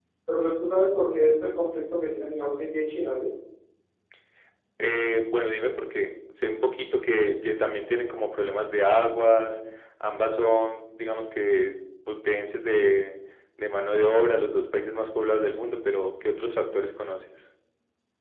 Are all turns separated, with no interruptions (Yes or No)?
Yes